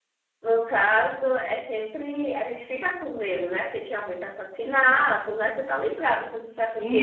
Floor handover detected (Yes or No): Yes